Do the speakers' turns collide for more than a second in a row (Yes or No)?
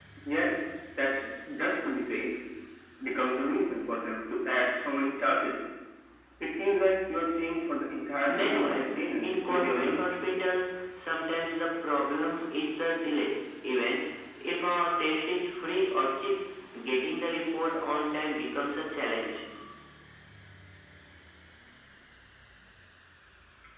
Yes